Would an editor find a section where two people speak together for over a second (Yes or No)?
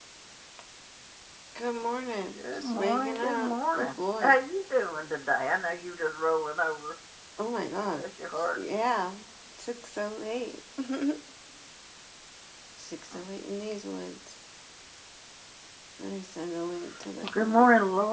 Yes